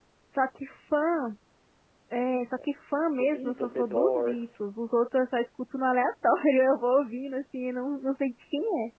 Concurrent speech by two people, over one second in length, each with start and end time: 3.2-4.6

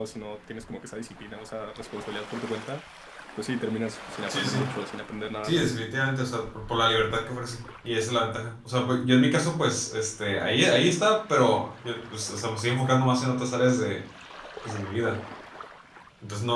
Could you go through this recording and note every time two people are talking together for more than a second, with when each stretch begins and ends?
none

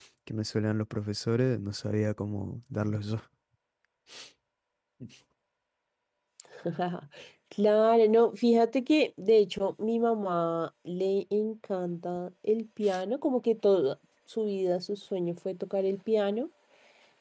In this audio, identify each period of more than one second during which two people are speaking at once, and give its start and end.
none

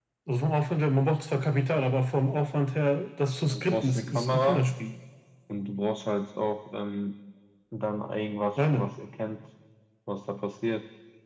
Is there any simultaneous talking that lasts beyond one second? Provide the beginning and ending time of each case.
3.5-4.7

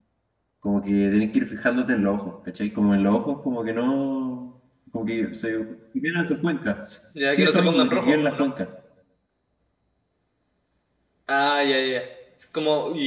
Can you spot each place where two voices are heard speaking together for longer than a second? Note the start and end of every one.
7.3-8.5

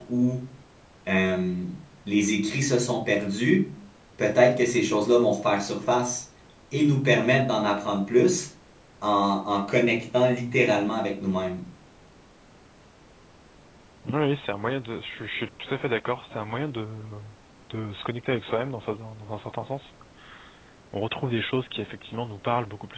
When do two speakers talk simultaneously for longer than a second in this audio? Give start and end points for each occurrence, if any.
none

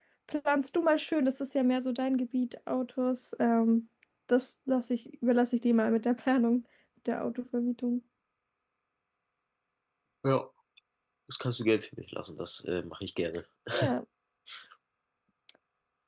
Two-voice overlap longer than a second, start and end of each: none

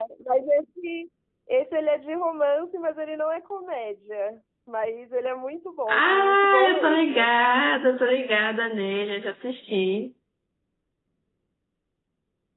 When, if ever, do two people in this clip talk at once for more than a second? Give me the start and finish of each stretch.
5.9-7.3

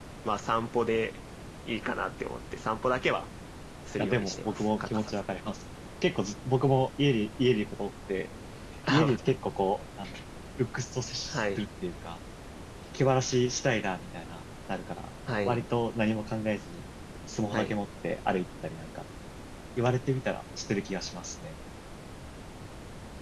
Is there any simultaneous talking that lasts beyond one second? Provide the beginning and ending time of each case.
4.0-5.2

